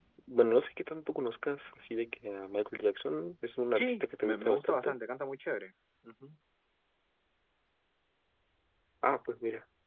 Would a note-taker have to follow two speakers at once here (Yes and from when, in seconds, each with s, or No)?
Yes, from 3.8 s